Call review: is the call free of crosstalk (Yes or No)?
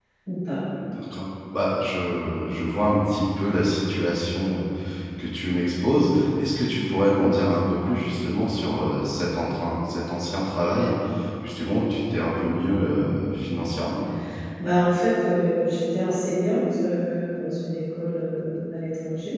Yes